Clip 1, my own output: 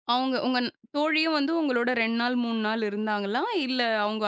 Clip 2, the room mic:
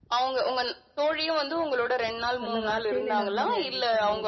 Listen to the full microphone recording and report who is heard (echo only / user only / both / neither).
both